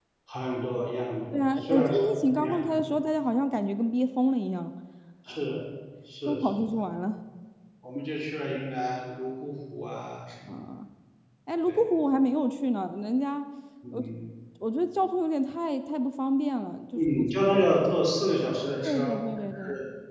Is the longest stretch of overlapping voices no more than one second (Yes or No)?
No